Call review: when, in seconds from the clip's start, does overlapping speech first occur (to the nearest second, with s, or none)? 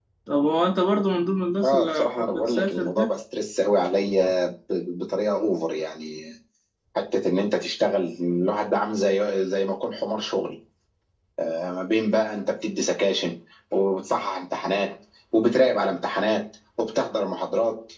2 s